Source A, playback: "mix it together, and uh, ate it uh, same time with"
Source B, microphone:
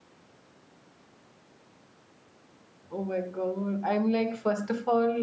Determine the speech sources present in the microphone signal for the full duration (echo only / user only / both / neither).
user only